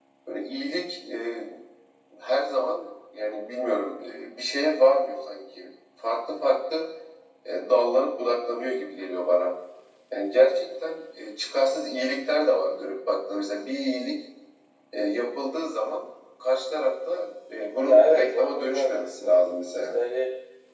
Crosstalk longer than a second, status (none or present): present